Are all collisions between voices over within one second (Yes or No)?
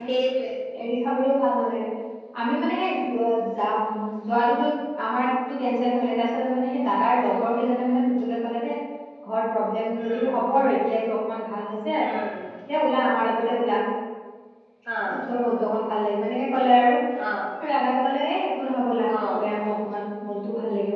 Yes